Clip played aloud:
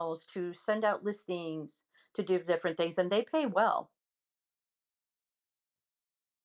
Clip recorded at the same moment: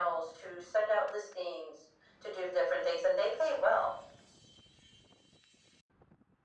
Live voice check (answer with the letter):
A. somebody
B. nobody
B